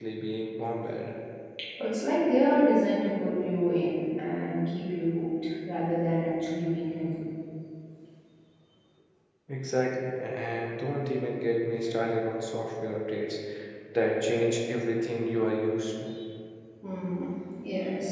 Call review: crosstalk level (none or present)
none